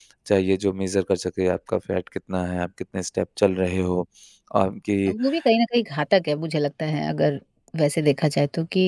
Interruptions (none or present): none